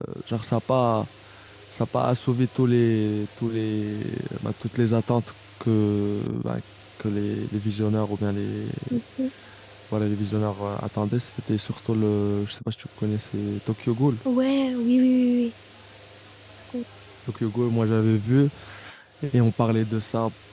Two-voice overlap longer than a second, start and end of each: none

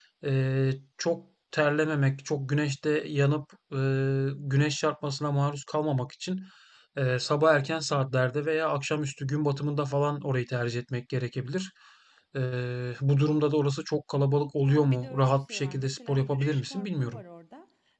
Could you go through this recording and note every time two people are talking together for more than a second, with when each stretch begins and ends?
14.7-17.2

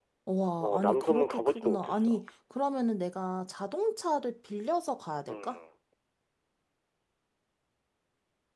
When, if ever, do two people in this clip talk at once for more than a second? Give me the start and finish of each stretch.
0.6-2.1

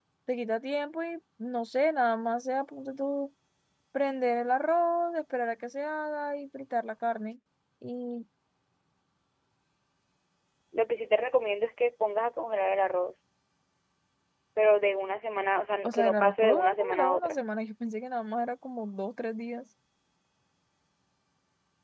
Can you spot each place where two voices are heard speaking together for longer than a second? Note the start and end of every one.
15.8-17.4

